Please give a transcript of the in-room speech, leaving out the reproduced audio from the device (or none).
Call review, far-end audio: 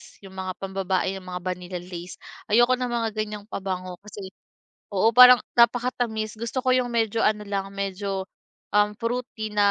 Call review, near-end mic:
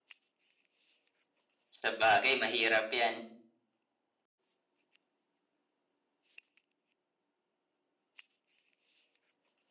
Sabagay mahirap 'yan.